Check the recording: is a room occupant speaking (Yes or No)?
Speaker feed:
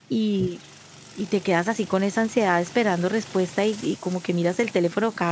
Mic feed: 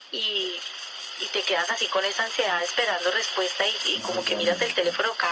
Yes